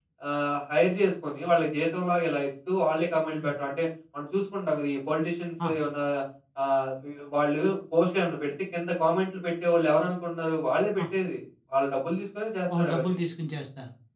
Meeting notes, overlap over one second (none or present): none